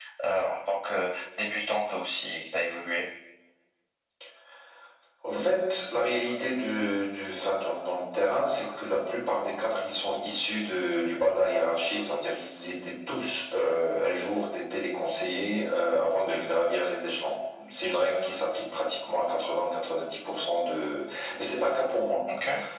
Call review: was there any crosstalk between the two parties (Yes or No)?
No